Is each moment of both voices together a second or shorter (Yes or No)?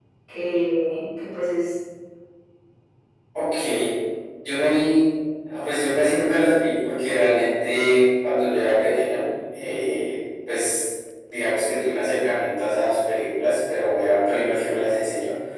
Yes